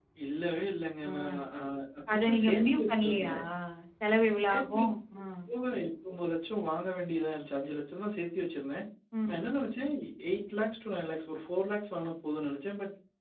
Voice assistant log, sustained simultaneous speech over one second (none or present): present